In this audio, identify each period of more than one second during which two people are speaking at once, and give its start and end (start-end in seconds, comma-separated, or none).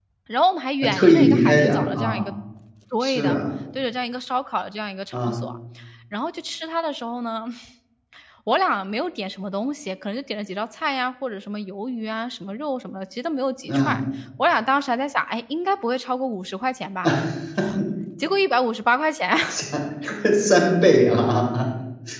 0.8-2.3